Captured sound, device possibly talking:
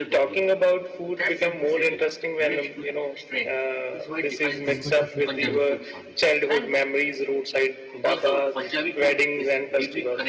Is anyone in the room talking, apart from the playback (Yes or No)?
Yes